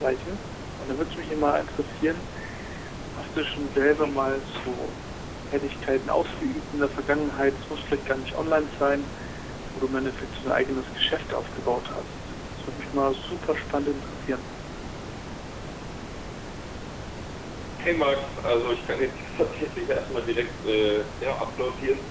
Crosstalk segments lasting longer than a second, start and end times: none

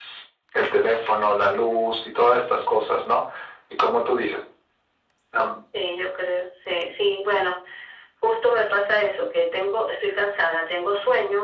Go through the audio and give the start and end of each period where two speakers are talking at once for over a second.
none

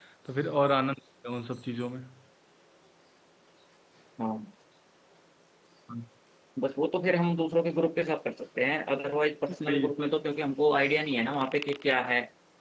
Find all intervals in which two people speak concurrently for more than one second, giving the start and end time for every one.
none

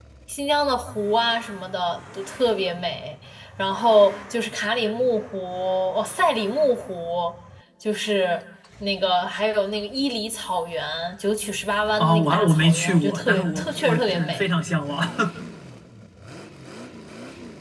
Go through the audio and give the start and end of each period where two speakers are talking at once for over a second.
12.0-14.5

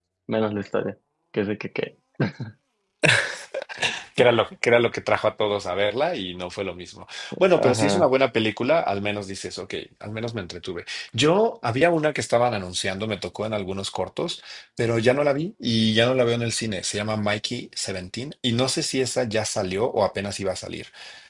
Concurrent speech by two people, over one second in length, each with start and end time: none

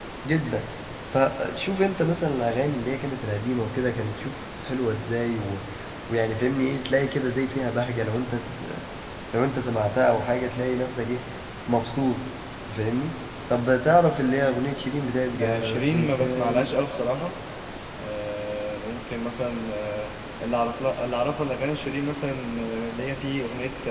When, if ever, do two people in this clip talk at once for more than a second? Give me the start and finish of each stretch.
15.4-16.7

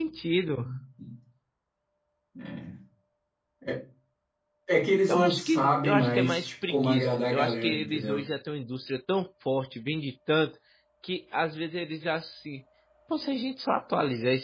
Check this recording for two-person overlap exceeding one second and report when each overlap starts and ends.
5.1-8.2

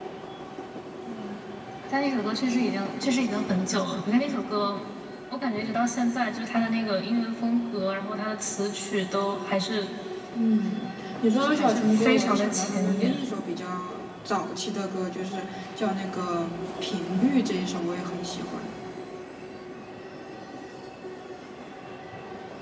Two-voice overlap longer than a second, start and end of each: 11.3-13.2

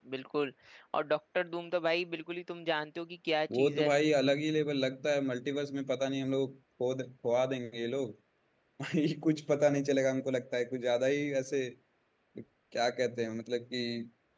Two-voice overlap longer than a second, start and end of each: none

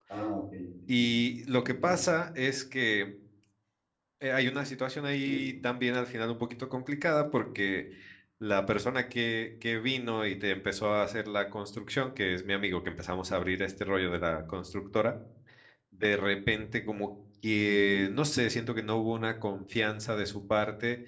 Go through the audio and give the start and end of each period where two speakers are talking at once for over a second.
none

